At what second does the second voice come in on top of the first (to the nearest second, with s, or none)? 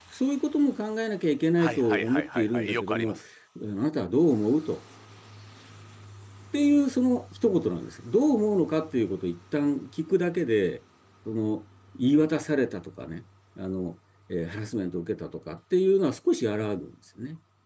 2 s